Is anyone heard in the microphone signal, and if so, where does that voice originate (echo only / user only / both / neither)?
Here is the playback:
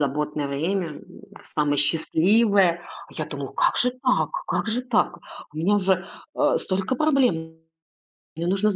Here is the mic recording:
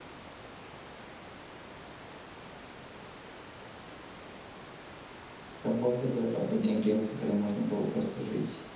user only